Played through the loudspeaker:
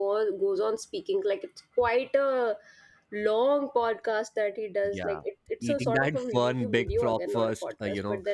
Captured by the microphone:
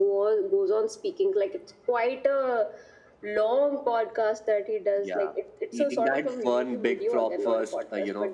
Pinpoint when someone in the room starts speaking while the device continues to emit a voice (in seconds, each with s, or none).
none